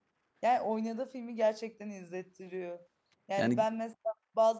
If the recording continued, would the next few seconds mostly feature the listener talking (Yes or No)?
No